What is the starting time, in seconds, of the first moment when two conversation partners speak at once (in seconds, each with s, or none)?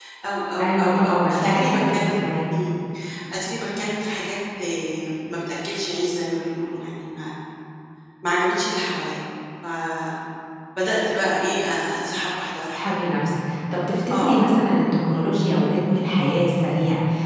0.6 s